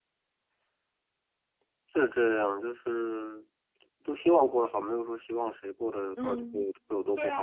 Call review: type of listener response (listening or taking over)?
taking over